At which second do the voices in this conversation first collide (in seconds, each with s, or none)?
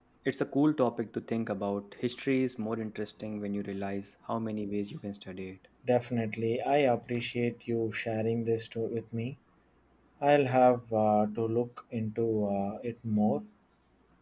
none